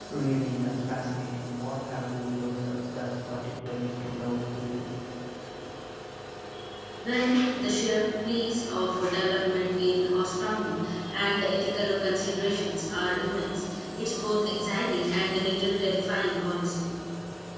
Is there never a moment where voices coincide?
Yes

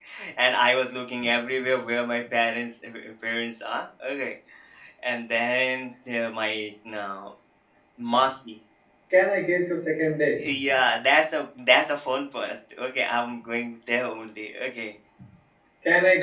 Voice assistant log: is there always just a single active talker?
Yes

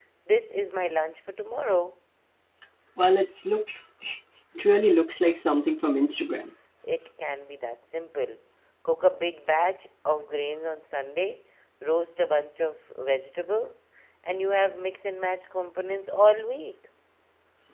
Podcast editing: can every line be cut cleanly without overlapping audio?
Yes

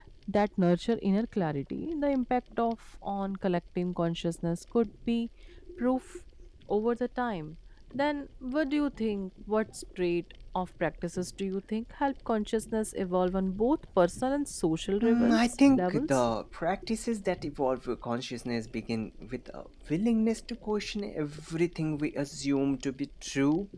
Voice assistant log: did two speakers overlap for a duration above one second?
Yes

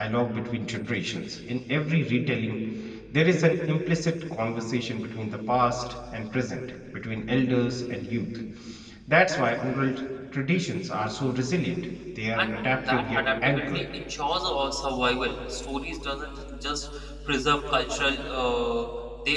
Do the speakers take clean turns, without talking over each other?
No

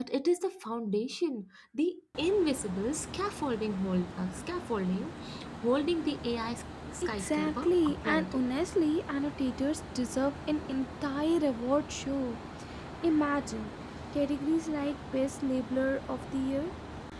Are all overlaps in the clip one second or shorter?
No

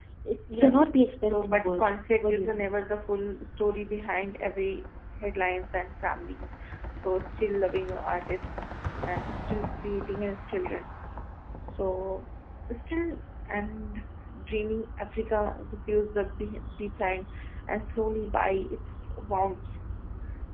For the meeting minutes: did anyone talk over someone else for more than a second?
Yes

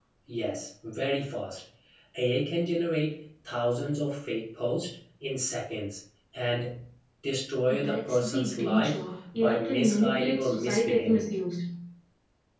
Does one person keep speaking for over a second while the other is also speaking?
Yes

